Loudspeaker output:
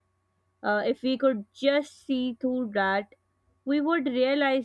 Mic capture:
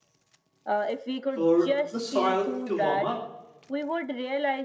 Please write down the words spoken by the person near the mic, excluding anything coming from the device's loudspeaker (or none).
for the soil to warm up